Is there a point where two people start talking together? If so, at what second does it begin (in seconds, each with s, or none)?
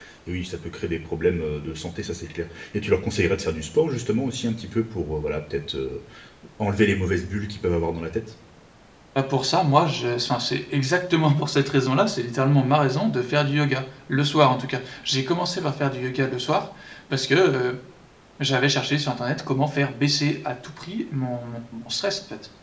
none